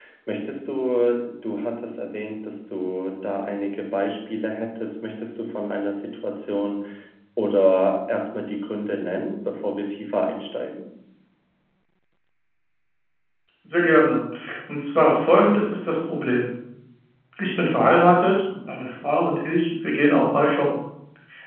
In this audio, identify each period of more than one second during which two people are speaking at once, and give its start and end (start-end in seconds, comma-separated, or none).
none